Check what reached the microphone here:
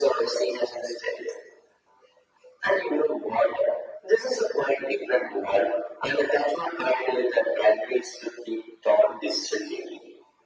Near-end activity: none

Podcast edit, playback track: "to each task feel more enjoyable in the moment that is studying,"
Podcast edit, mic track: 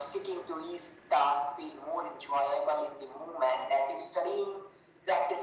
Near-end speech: none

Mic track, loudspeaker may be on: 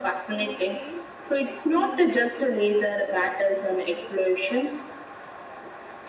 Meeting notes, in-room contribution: present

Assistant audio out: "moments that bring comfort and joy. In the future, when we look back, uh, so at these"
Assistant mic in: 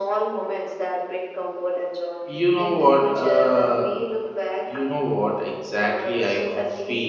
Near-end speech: present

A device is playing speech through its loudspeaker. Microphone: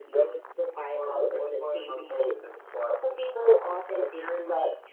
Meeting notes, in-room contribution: none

